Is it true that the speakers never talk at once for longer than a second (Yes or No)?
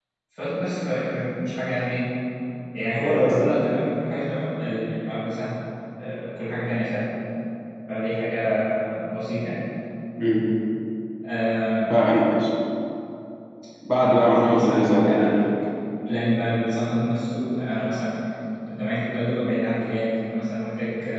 No